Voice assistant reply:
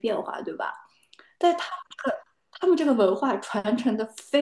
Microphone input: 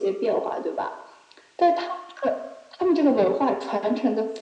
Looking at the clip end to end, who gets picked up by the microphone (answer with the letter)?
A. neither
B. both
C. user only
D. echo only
D